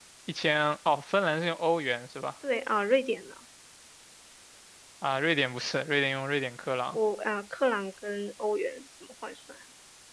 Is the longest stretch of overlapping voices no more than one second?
Yes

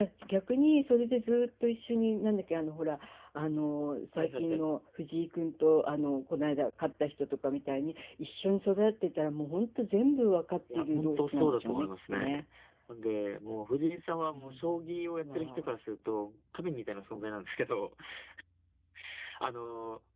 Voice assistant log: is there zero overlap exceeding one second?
No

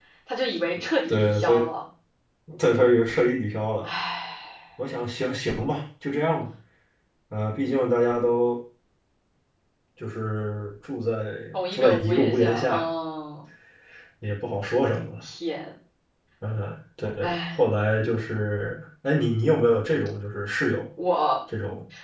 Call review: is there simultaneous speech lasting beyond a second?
Yes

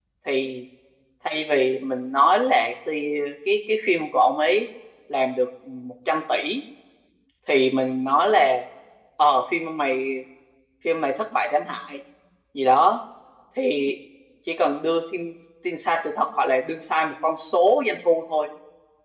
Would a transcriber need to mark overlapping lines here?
No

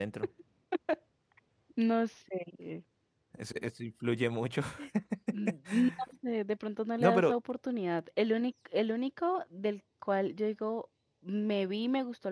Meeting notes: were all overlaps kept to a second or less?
Yes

